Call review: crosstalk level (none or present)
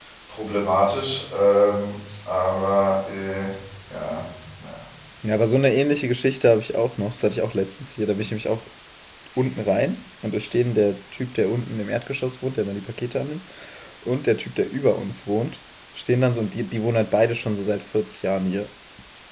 none